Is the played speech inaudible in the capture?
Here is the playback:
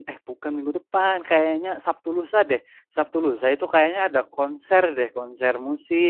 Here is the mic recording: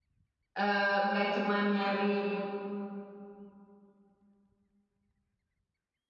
Yes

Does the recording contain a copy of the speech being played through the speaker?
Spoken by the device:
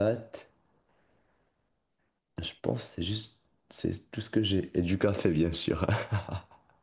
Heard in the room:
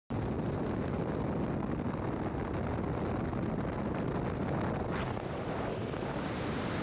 No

